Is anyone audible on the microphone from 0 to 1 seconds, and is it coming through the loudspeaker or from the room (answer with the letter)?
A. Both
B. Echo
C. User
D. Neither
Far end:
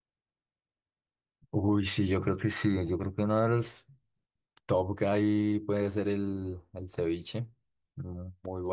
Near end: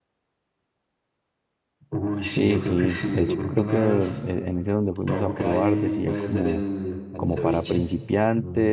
D